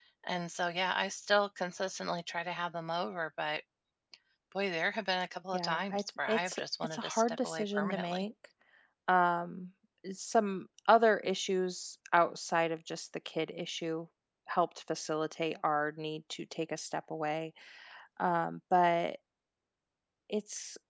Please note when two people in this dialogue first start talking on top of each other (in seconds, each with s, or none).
5.5 s